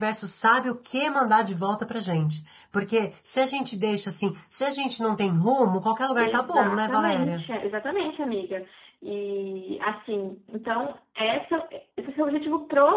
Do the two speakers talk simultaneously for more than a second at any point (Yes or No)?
Yes